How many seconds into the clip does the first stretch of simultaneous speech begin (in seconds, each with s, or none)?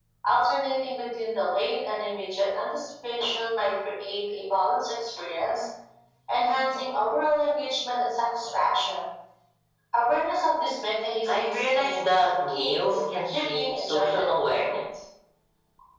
11.3 s